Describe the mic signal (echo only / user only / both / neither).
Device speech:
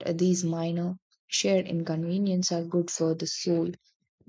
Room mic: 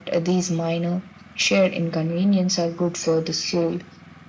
echo only